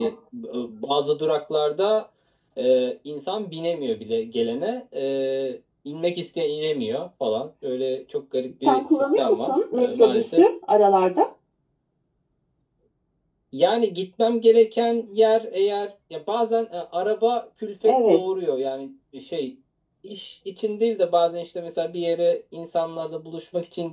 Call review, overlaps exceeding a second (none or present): present